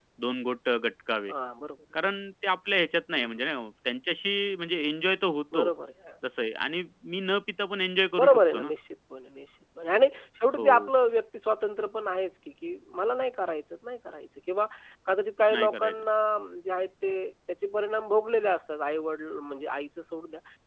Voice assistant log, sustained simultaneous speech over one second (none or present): none